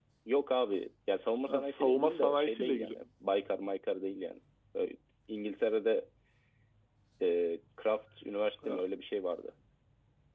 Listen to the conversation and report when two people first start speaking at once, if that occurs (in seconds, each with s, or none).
1.4 s